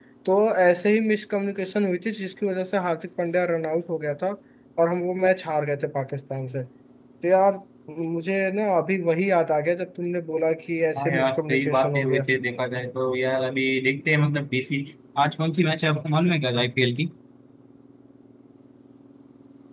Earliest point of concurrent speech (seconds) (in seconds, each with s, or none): 11.0 s